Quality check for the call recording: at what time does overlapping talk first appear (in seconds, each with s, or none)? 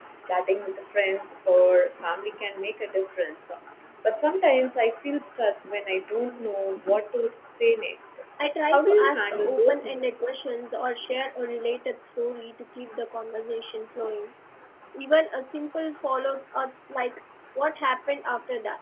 8.7 s